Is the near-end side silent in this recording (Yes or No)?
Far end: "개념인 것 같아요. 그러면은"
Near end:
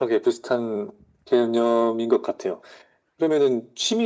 Yes